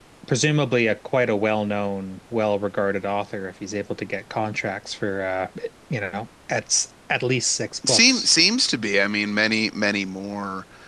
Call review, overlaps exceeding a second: none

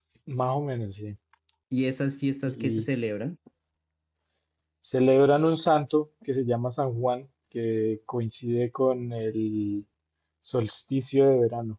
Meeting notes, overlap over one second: none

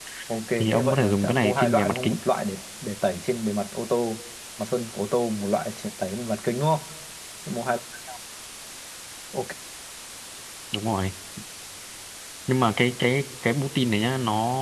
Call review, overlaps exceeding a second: present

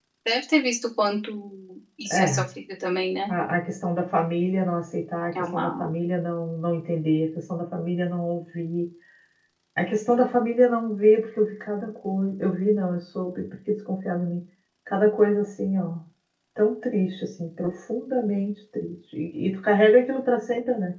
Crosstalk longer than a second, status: none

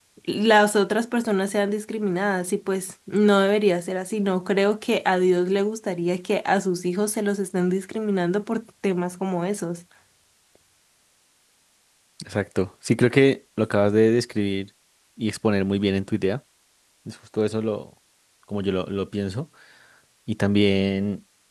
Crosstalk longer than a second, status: none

